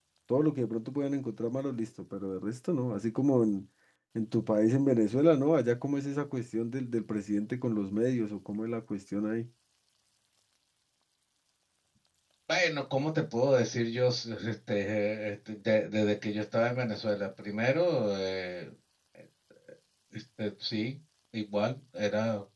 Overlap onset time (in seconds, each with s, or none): none